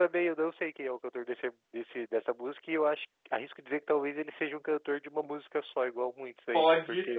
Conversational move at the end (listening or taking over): taking over